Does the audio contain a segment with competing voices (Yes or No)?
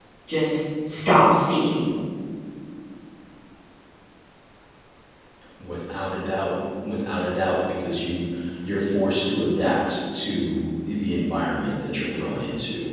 No